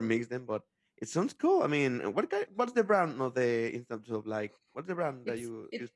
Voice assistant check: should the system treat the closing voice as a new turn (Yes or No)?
Yes